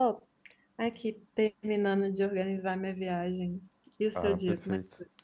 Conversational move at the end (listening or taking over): taking over